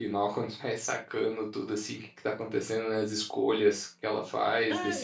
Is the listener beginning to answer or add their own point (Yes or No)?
Yes